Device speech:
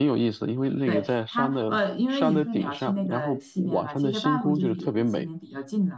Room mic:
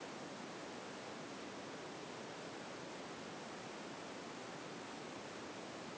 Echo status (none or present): none